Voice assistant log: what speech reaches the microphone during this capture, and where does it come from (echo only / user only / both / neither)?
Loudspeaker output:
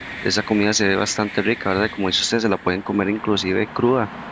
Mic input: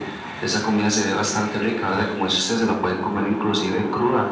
echo only